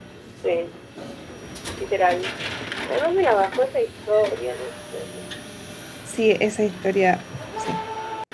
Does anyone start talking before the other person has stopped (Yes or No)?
No